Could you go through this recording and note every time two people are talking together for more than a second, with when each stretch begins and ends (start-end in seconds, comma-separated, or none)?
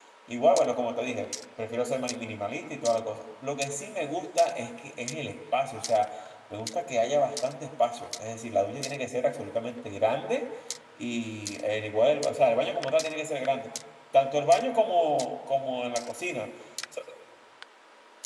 none